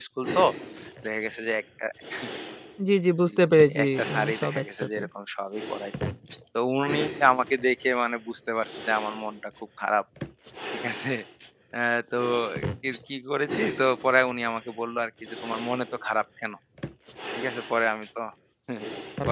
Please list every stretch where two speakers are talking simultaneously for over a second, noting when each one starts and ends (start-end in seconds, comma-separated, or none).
3.3-5.0